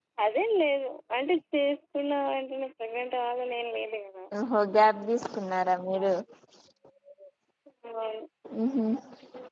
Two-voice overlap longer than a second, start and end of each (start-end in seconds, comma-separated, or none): none